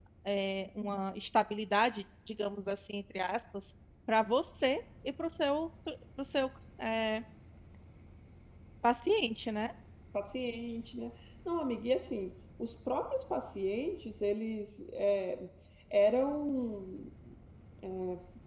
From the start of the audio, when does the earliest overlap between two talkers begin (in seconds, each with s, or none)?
none